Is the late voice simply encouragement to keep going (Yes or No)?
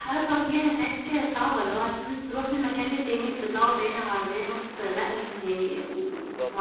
No